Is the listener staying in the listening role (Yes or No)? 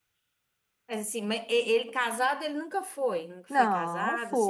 No